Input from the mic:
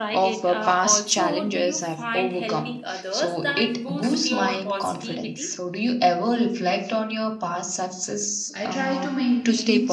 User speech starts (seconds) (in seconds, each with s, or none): 8.5 s